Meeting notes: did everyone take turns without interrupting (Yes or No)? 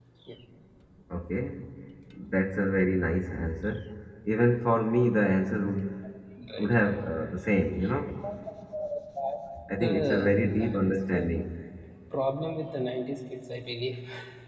No